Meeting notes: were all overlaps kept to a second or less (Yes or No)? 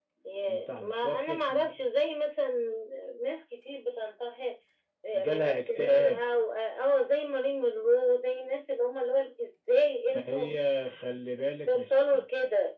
No